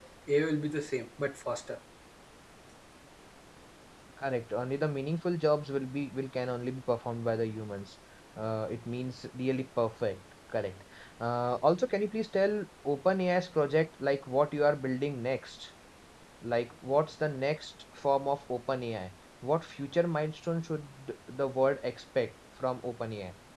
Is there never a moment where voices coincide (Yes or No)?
Yes